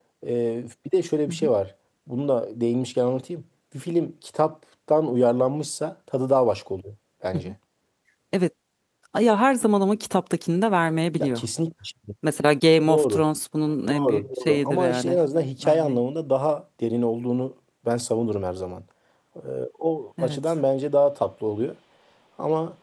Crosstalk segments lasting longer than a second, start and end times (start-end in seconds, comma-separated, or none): 13.9-15.2